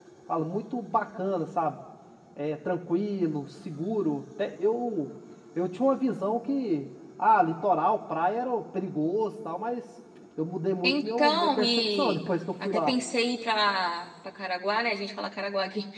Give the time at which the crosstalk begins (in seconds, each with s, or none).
10.8 s